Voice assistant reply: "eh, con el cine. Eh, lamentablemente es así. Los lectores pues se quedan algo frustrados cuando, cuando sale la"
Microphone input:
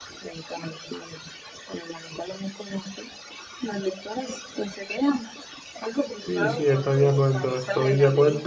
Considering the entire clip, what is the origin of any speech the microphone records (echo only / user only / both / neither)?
both